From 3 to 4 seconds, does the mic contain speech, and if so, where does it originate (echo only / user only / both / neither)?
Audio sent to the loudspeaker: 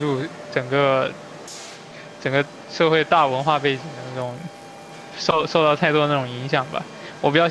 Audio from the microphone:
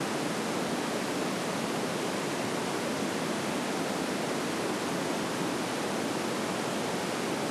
neither